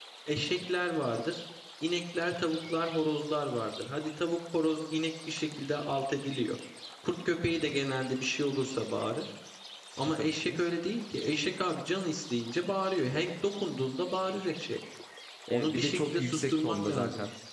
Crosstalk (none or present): present